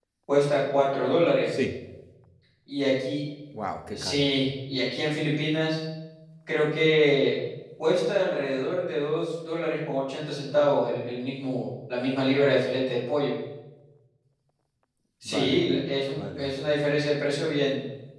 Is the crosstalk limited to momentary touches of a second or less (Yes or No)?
Yes